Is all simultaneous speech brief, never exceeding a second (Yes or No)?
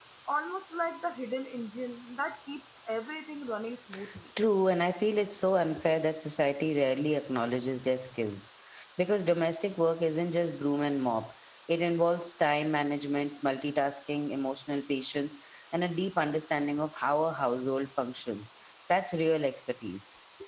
Yes